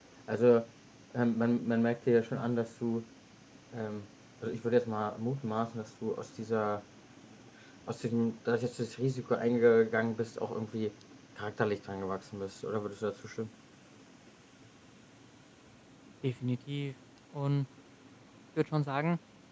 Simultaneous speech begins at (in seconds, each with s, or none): none